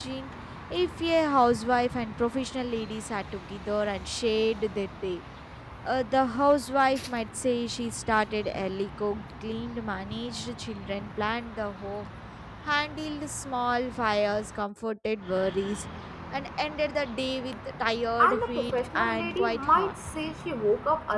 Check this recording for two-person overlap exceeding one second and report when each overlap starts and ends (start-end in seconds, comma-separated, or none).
18.2-19.9